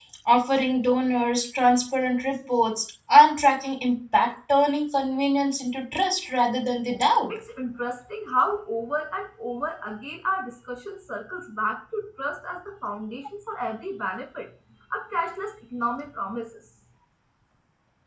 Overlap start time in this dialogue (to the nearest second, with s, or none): none